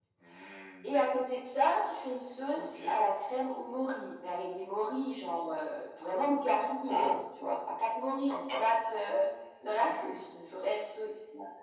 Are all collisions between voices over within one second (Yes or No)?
Yes